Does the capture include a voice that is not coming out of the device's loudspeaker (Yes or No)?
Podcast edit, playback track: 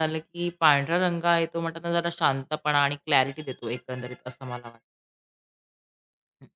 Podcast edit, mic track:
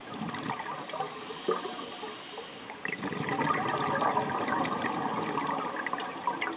No